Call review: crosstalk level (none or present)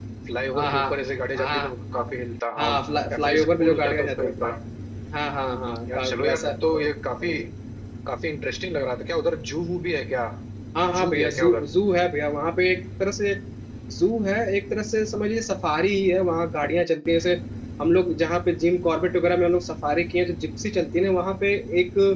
present